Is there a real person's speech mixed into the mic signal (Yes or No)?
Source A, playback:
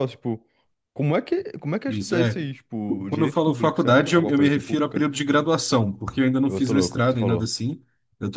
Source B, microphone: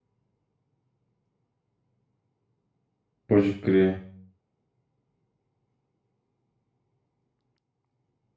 Yes